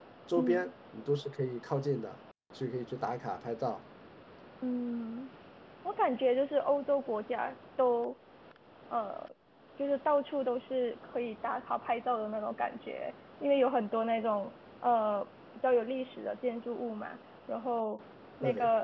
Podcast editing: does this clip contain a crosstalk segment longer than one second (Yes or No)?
No